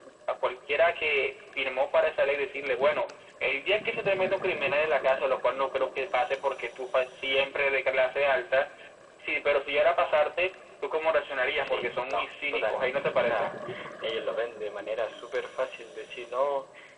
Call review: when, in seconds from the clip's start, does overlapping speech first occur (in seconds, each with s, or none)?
11.6 s